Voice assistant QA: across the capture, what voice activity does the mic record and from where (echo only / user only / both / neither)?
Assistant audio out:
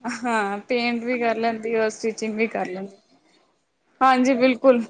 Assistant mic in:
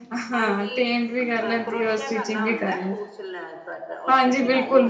both